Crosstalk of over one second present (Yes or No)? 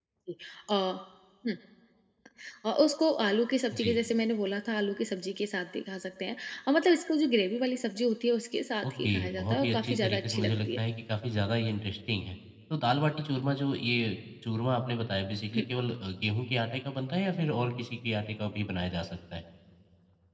Yes